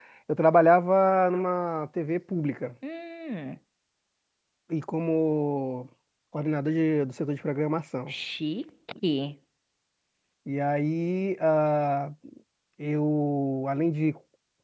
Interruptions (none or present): none